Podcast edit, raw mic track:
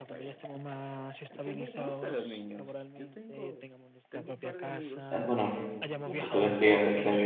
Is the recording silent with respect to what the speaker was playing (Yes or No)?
No